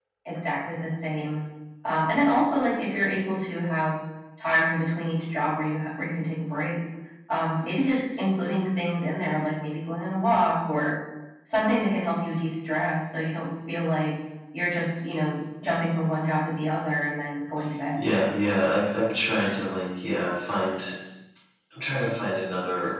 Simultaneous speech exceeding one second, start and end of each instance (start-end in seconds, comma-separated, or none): none